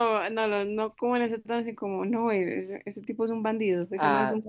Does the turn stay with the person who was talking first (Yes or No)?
No